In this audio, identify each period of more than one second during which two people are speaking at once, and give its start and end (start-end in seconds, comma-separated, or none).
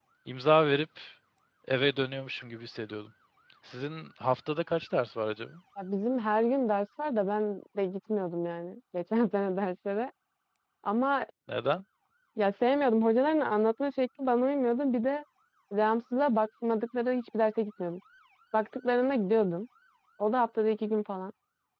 none